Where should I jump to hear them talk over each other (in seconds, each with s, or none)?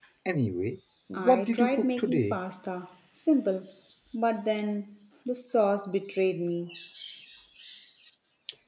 1.2 s